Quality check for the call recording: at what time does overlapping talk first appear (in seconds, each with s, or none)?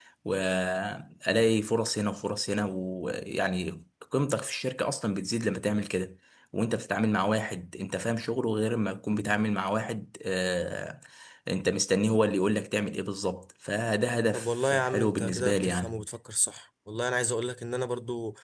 14.3 s